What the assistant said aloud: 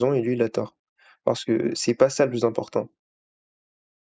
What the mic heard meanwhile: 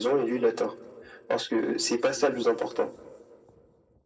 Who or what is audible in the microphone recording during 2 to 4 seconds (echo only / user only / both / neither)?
echo only